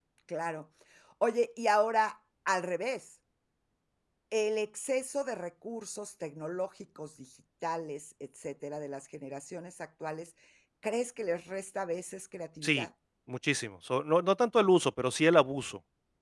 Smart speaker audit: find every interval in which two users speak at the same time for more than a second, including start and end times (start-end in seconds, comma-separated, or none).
none